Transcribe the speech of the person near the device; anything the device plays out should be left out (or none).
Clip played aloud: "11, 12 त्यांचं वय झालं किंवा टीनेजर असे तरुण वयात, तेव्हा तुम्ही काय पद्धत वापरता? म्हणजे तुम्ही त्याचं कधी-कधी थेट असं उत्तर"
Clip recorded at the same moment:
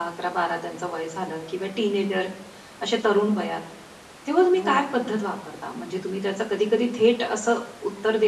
हो ना.